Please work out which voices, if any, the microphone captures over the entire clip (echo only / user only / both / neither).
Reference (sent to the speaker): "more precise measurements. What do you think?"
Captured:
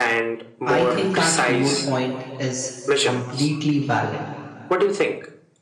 both